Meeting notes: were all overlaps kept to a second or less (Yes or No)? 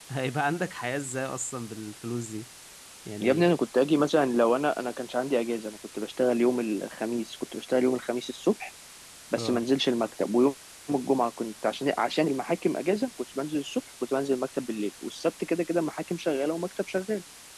Yes